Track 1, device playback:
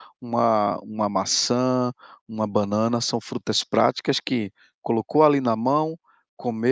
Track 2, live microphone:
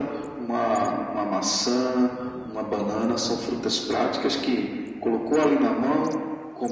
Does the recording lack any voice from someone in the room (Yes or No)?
Yes